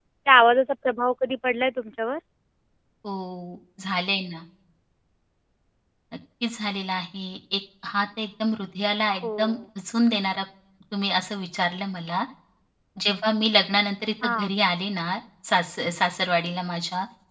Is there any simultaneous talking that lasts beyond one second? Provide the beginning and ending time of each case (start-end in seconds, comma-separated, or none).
none